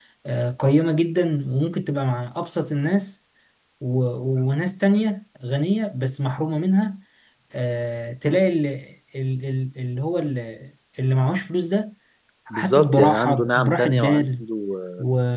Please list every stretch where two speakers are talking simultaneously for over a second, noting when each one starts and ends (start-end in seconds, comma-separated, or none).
12.5-14.4